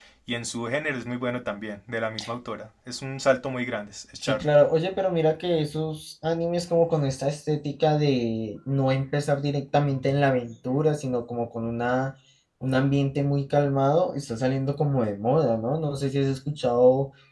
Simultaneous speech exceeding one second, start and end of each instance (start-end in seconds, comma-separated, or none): none